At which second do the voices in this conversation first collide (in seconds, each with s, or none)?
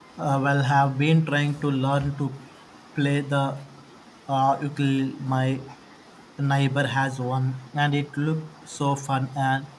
none